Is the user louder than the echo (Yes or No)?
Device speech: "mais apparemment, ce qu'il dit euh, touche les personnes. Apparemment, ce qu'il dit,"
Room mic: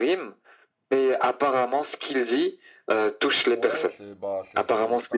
No